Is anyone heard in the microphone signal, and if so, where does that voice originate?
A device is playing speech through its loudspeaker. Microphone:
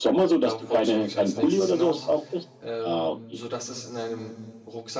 both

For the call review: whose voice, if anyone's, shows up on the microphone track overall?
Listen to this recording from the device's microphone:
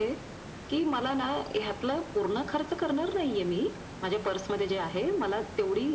echo only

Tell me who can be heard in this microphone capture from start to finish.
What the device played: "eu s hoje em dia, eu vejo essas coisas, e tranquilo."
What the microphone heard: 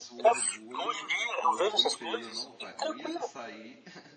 both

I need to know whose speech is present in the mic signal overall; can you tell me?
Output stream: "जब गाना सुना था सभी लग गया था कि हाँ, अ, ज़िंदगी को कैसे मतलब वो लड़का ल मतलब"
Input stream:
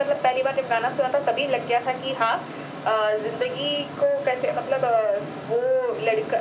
echo only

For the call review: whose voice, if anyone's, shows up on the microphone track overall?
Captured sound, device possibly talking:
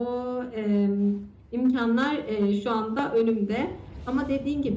echo only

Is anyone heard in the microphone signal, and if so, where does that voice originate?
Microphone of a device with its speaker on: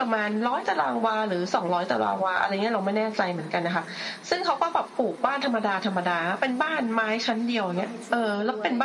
both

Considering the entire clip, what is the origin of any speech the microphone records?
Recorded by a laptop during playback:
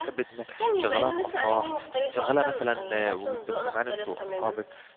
both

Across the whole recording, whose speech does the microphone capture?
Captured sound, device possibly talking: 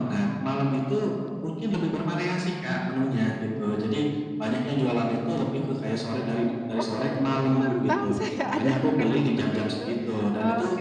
both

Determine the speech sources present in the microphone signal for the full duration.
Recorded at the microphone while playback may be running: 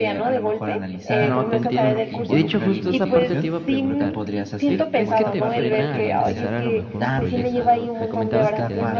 both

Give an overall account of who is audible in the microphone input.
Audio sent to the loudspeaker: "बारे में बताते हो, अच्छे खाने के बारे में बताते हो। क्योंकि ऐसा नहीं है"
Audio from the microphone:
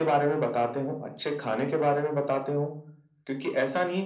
echo only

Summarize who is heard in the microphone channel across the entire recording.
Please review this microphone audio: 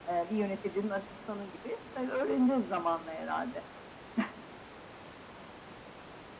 echo only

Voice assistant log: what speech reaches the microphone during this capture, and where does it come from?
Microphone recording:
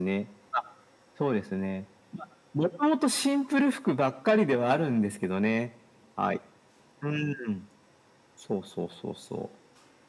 echo only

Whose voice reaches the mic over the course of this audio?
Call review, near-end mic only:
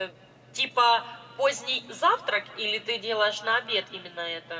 user only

